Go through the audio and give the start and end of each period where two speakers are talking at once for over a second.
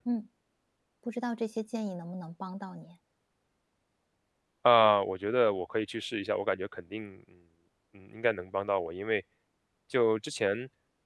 none

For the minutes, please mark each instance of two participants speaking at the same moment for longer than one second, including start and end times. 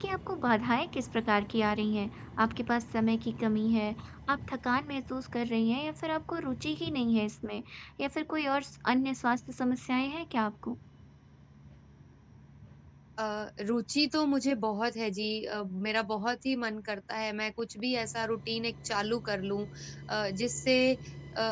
none

